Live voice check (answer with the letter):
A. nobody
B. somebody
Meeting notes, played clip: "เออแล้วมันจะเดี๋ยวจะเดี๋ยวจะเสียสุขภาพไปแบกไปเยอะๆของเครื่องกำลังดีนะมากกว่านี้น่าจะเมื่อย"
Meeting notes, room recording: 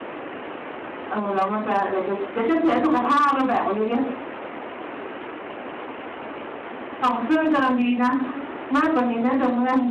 A